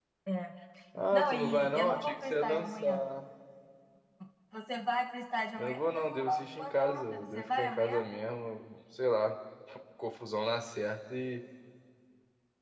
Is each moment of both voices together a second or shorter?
No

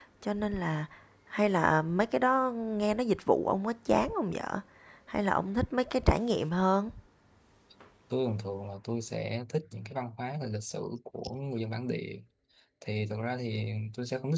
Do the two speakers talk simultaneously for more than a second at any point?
No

